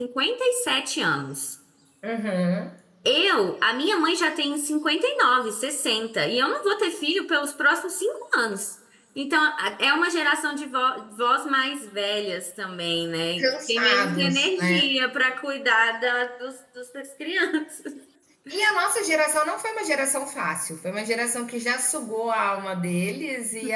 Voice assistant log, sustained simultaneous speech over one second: present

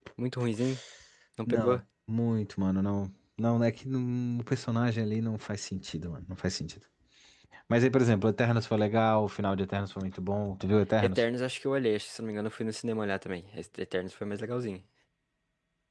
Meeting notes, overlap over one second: none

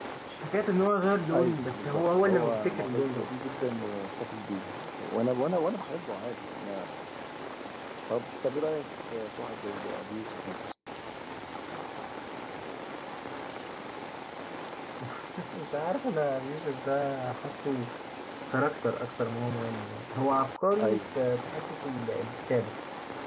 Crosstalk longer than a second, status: present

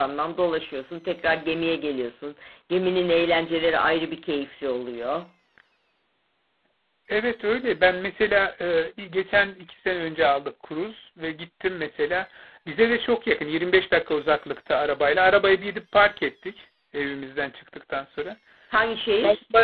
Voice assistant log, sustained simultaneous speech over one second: none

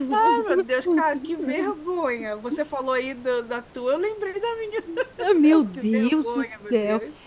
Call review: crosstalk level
present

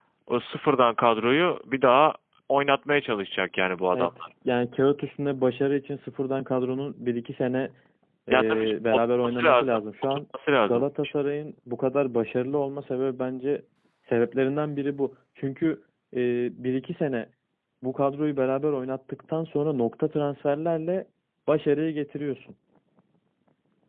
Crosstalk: present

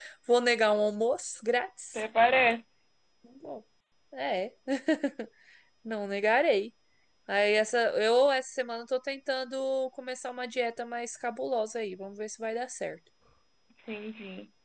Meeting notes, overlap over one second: none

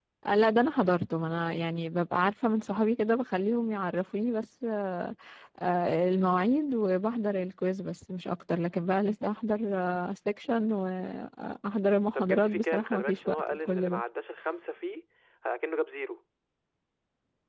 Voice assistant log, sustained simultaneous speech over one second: present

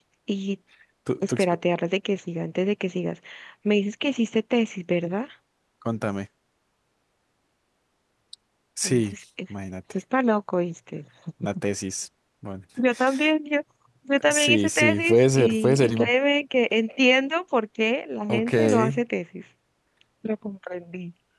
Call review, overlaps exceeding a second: present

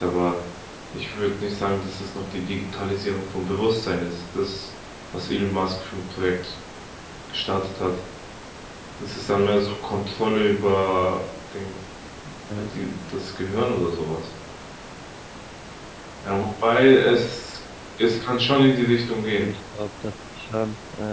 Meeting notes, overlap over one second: none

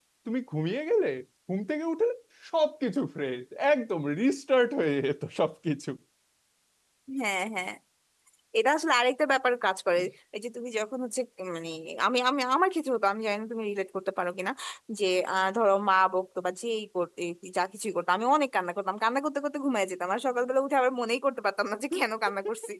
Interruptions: none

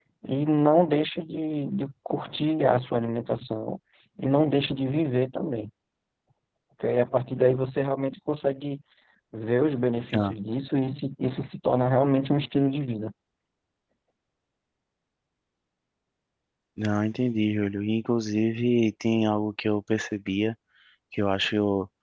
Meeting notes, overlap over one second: none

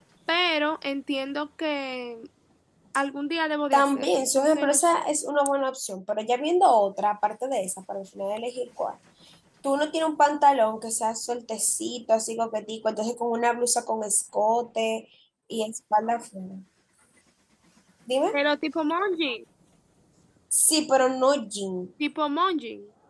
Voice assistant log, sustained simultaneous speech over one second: present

